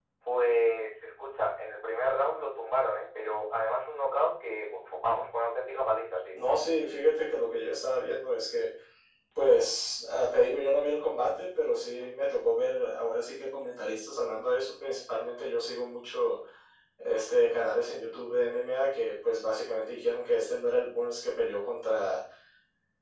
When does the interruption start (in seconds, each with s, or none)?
none